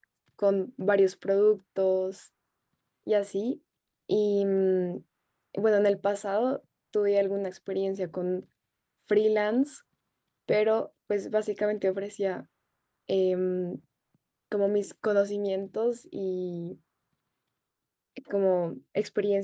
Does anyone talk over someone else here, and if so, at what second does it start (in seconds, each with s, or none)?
none